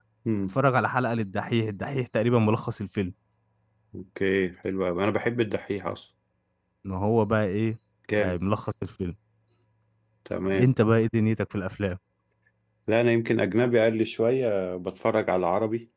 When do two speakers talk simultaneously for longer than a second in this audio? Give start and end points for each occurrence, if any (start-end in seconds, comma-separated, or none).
none